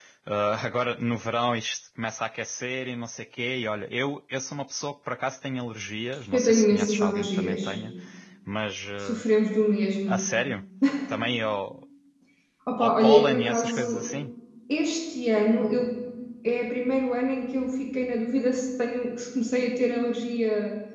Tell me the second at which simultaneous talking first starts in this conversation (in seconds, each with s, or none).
6.3 s